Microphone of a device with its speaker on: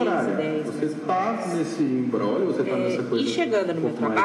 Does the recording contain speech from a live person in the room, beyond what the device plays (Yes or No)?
Yes